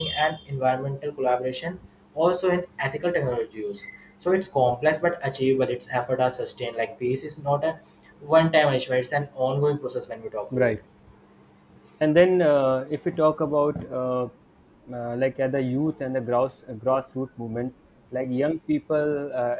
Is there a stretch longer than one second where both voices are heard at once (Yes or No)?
No